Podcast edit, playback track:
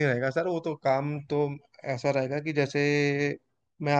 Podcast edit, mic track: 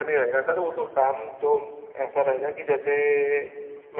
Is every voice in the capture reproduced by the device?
Yes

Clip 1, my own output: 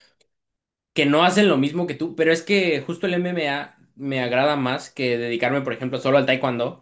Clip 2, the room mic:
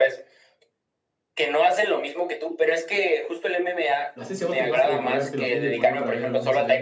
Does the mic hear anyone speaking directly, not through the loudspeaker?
Yes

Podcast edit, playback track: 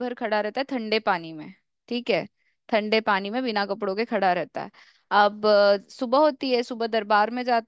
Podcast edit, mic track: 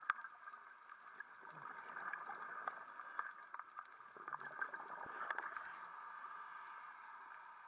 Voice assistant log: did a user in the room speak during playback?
No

